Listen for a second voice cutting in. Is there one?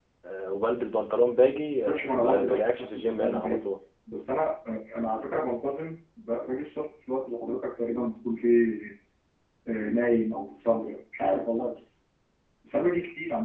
Yes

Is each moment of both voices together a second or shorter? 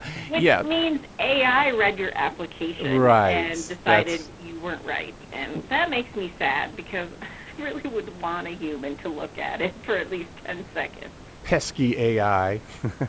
No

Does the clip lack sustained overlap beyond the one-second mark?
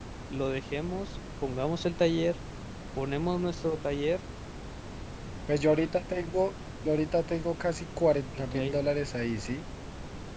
Yes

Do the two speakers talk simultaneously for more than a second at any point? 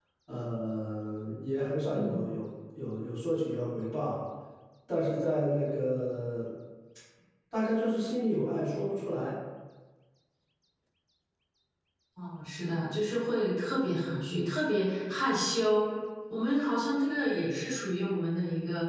No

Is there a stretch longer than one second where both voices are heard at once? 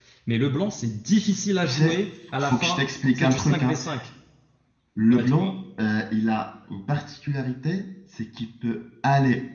Yes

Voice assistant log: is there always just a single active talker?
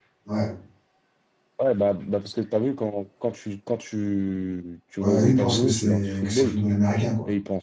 No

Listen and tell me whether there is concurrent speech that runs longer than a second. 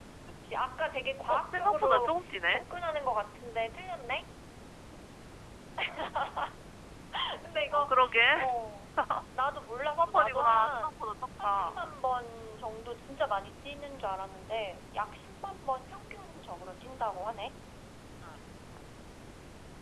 Yes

